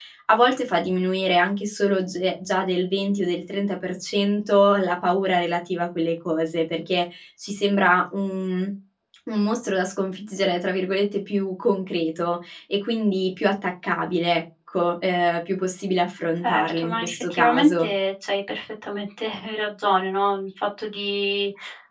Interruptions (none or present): present